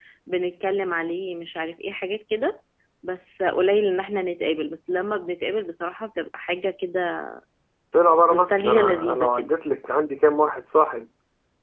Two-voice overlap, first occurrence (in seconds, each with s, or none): 8.3 s